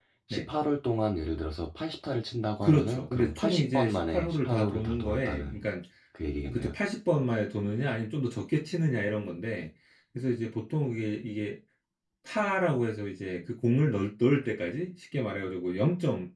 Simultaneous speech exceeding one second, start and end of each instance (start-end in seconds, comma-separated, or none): 2.6-5.6